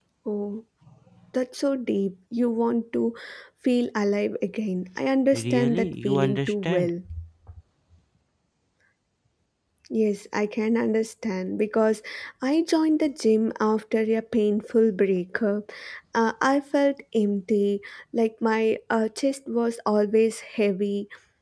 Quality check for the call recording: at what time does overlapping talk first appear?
5.3 s

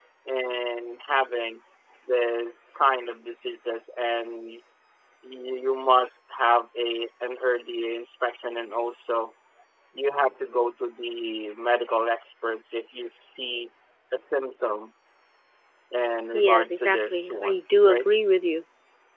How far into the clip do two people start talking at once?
16.3 s

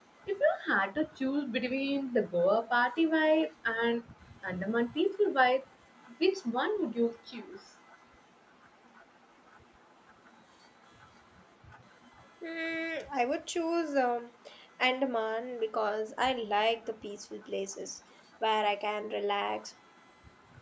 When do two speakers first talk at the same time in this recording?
none

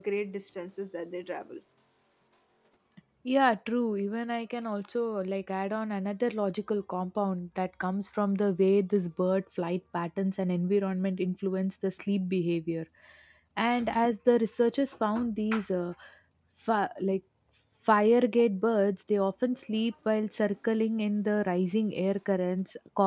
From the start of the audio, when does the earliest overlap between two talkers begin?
none

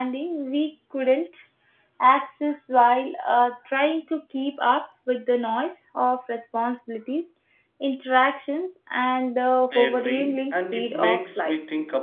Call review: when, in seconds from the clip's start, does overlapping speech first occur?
9.7 s

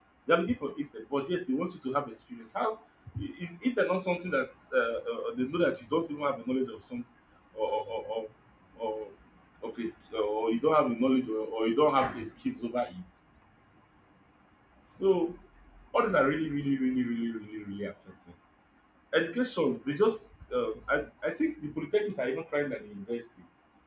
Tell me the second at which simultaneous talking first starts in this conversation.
none

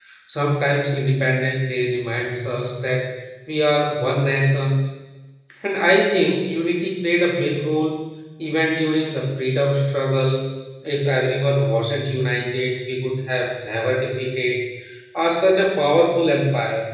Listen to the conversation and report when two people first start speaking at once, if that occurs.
none

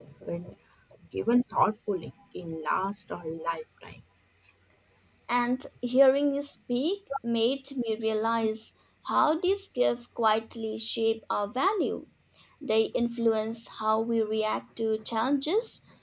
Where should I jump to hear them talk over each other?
none

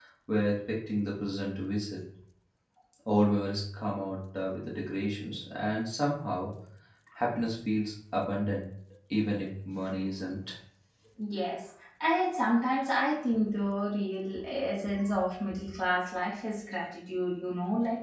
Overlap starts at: none

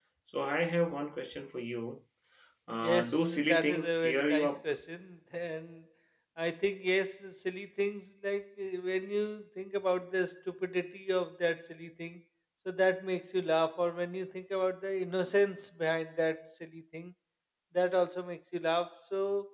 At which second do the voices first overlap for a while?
2.8 s

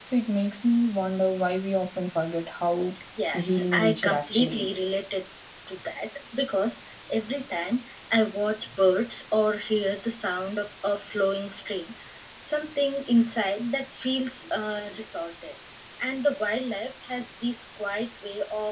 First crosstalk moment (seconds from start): 3.3 s

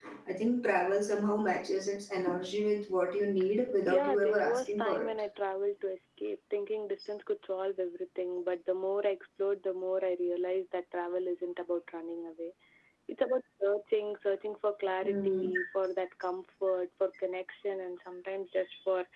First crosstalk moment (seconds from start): 3.8 s

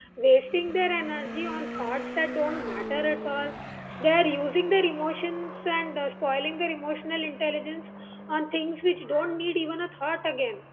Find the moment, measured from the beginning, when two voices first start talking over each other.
none

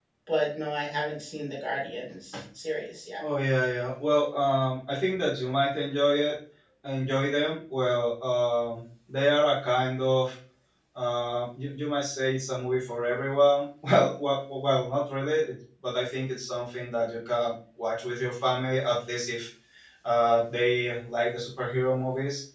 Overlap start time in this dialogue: none

